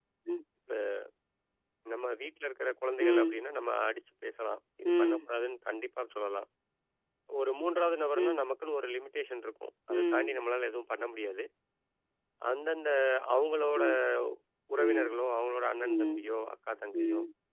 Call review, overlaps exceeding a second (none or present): none